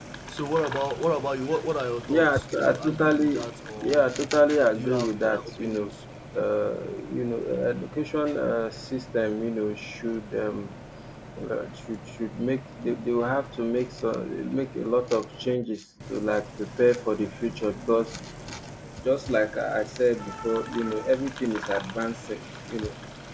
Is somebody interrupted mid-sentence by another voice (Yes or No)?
Yes